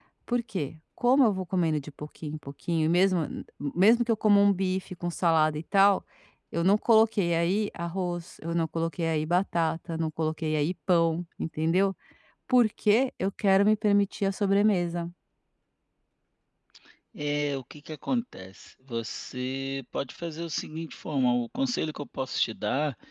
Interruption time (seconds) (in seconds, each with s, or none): none